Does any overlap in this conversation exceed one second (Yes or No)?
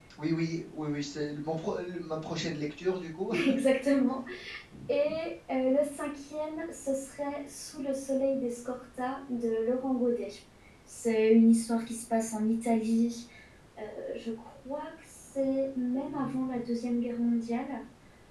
No